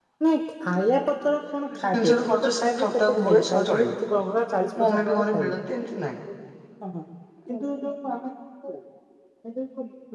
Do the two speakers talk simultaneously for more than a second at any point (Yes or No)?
Yes